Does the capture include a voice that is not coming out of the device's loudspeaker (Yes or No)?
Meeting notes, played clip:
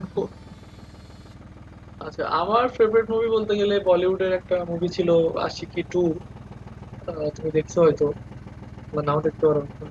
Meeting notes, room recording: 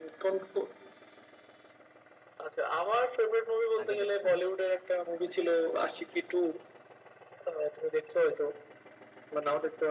Yes